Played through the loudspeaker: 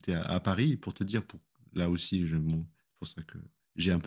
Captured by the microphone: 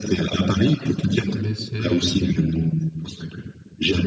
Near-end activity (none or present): present